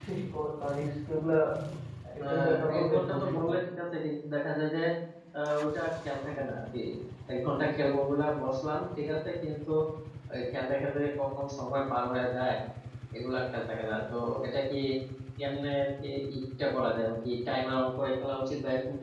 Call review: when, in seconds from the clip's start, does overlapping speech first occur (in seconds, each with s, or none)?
2.2 s